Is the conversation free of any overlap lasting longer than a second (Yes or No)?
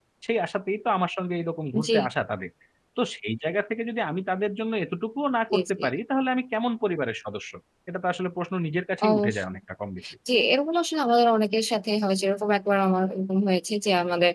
Yes